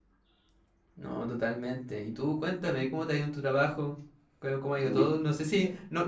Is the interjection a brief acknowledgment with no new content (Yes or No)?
Yes